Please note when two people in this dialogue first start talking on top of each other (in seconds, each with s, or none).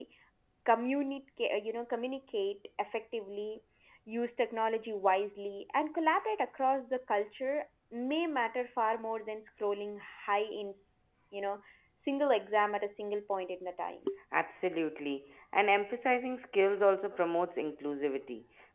none